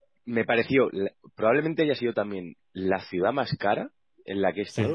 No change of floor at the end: Yes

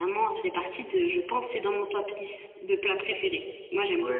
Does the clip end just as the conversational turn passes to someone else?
Yes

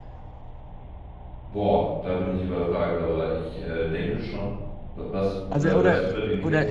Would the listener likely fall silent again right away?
No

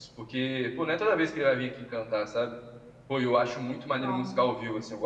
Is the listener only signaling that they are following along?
Yes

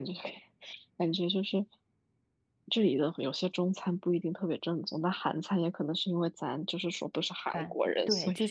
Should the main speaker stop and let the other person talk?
Yes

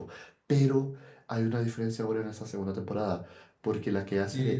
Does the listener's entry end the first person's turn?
Yes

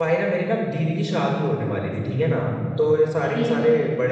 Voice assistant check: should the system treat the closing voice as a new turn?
No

